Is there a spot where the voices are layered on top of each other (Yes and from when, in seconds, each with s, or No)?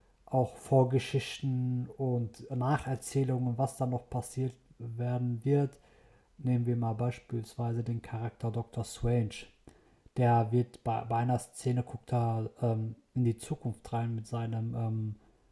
No